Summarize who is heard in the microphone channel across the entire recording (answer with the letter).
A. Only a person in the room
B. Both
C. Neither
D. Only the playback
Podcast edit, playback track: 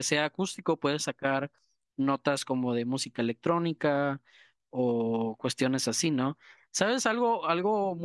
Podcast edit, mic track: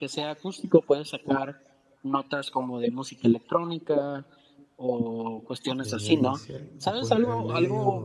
B